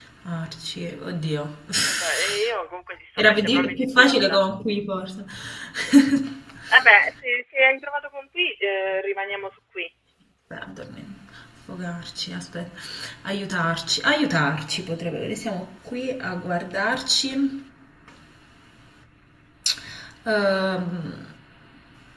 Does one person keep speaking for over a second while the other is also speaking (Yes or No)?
Yes